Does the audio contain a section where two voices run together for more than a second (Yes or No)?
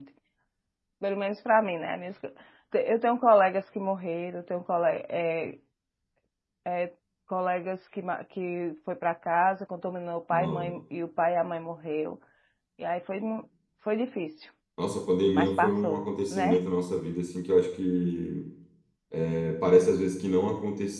Yes